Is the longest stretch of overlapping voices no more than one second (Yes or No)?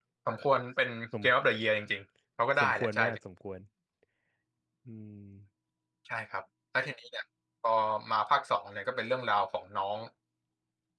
Yes